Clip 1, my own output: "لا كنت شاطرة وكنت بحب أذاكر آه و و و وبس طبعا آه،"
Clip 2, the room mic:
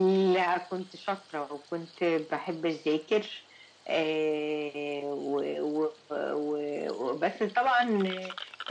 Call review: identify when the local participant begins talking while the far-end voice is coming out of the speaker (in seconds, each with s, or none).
none